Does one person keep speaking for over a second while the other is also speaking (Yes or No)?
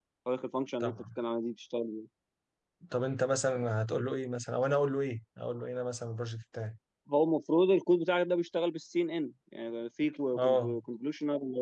No